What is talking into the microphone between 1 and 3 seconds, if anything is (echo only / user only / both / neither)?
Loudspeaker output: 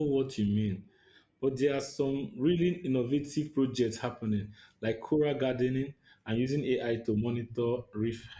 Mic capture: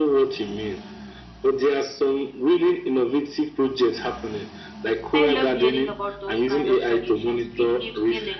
echo only